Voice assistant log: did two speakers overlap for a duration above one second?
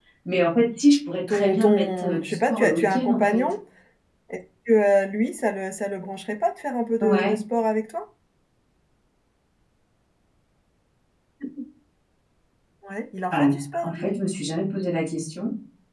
Yes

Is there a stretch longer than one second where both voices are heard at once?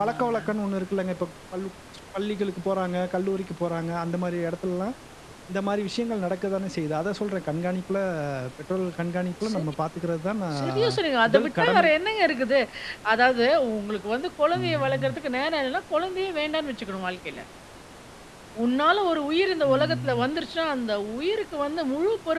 Yes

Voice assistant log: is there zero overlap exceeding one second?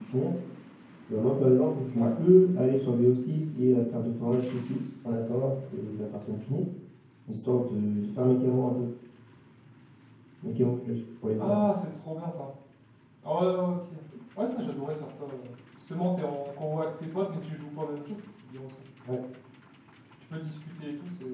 Yes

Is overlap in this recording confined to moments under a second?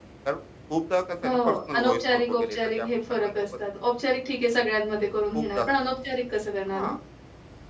No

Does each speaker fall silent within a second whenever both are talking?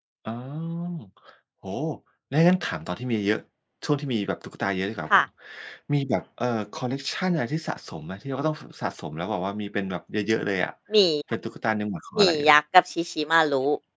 Yes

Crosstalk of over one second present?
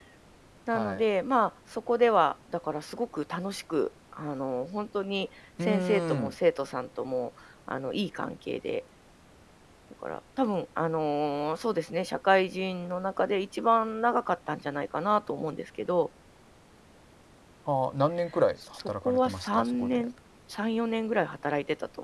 Yes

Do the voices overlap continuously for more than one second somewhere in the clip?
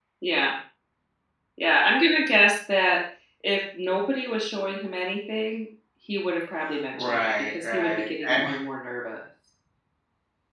Yes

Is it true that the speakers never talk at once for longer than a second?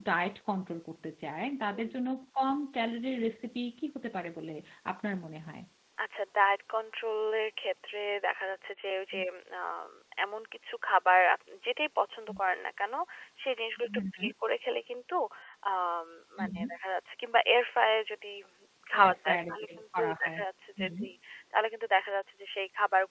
No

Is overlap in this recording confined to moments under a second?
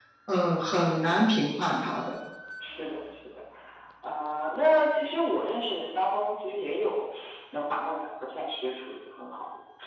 Yes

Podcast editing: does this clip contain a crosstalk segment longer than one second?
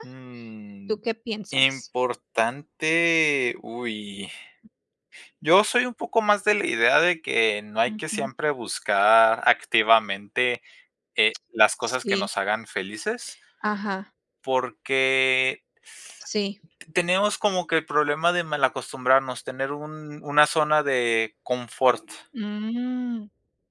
No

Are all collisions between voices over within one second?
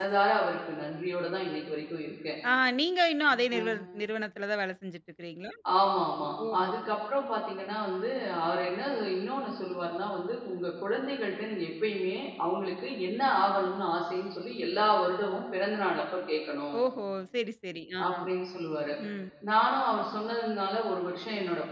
Yes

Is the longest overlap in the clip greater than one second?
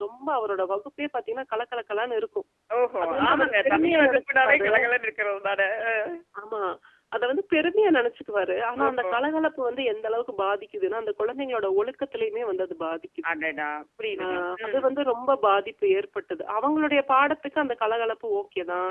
Yes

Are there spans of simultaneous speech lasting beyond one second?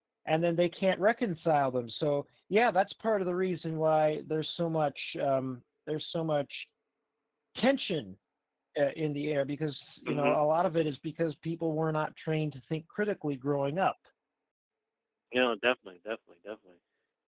No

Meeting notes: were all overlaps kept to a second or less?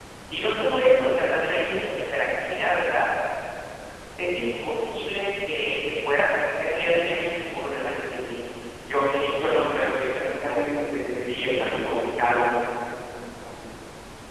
No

